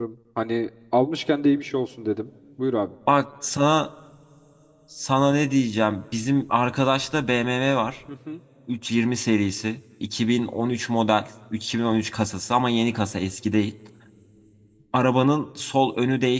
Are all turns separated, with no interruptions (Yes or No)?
Yes